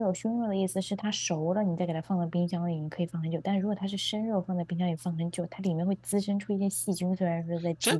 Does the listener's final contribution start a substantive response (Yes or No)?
Yes